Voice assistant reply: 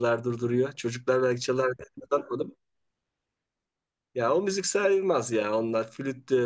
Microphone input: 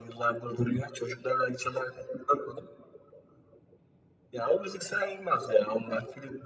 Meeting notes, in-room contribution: none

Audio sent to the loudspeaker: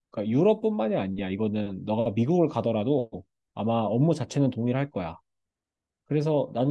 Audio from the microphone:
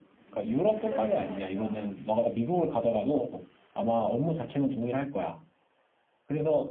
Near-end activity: present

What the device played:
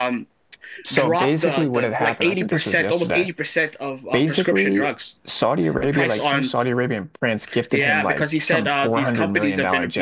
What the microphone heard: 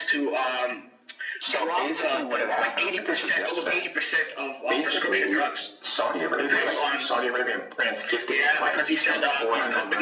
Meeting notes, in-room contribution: none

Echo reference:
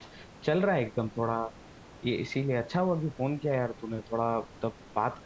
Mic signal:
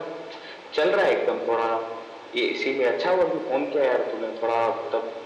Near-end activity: none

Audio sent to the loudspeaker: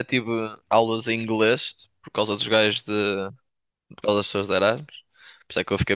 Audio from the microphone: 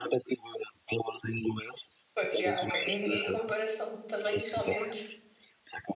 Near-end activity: present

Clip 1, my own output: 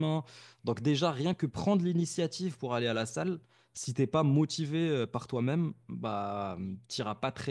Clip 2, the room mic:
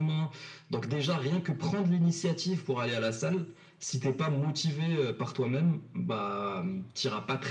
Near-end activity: none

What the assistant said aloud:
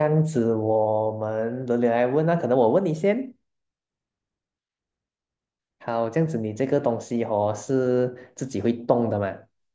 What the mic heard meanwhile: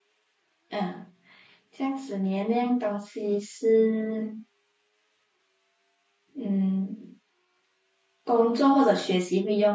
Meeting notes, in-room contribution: present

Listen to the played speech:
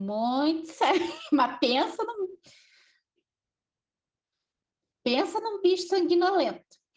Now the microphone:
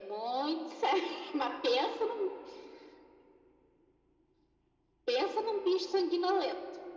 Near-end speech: none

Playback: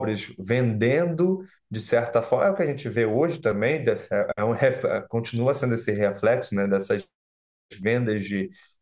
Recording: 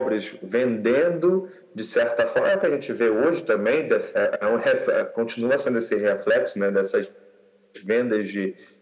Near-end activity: none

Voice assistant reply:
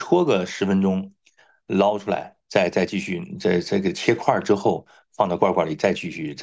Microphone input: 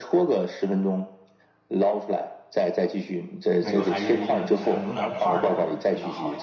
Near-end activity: present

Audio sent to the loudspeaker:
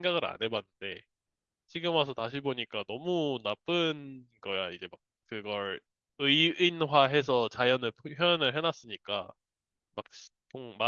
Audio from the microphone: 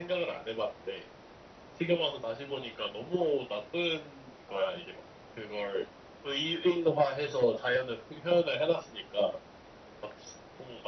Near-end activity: none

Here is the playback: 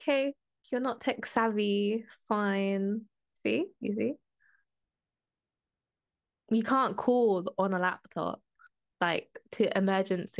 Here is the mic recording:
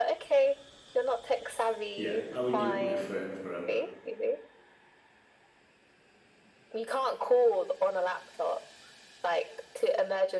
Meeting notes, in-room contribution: present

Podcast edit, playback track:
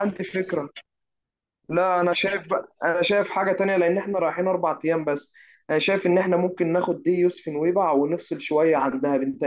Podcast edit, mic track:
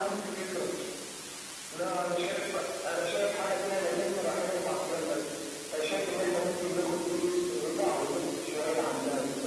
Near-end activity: none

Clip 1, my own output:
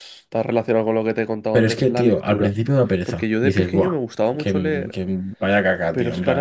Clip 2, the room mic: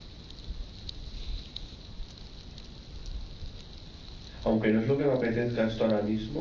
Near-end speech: present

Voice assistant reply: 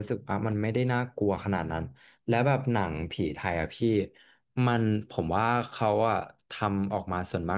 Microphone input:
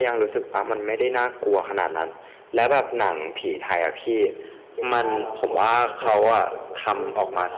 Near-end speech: present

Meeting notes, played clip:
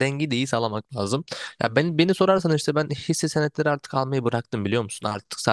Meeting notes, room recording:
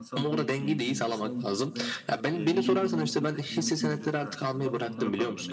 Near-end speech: present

